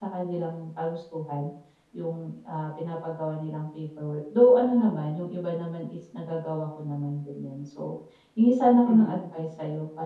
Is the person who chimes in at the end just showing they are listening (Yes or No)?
Yes